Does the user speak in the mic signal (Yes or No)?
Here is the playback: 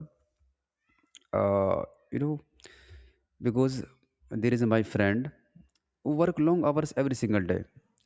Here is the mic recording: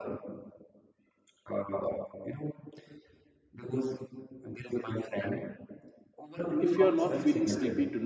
Yes